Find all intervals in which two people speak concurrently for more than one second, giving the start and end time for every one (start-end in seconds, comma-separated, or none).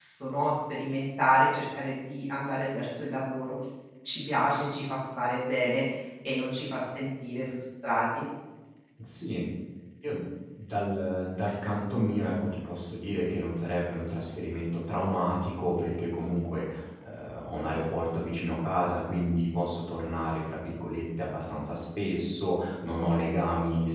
none